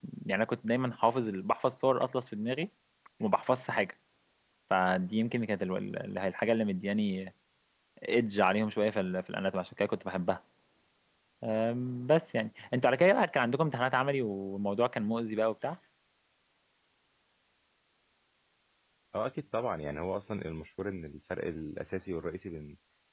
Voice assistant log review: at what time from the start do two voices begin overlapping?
none

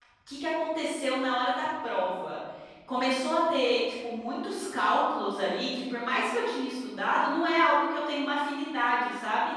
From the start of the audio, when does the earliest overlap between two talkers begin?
none

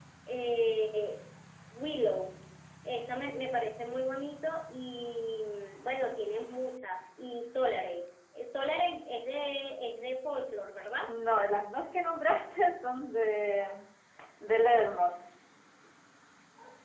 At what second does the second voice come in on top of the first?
none

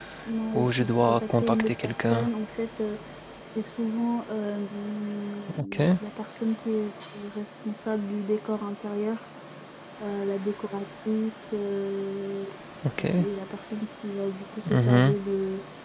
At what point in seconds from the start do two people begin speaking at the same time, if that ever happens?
1 s

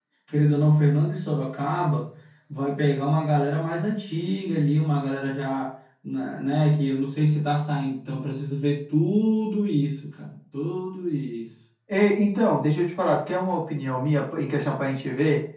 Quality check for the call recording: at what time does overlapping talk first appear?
none

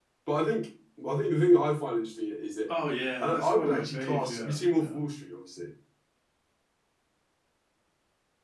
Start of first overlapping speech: 3 s

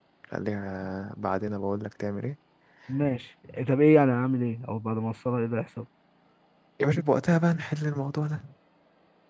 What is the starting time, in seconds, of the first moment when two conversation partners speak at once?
none

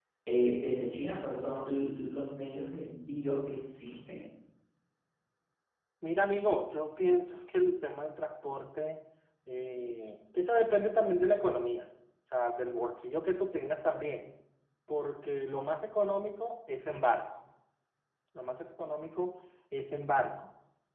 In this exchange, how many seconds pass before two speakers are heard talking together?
none

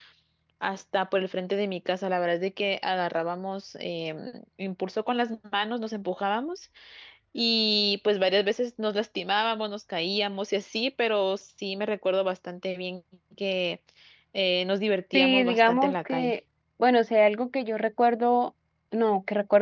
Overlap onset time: 15 s

